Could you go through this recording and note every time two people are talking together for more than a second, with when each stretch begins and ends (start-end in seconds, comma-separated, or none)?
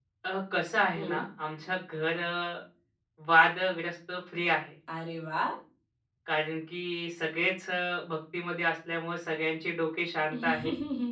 none